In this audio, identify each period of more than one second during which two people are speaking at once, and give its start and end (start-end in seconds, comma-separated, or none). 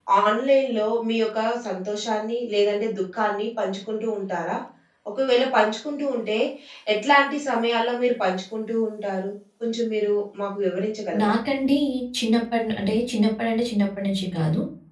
none